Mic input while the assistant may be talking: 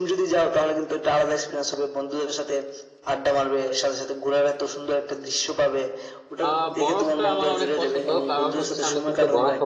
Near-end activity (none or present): present